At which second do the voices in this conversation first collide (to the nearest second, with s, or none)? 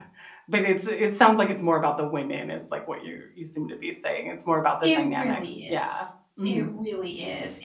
5 s